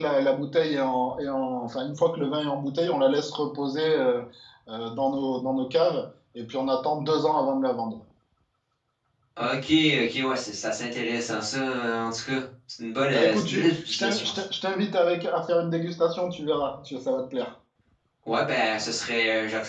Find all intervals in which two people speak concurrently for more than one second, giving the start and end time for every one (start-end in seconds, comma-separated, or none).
13.1-14.4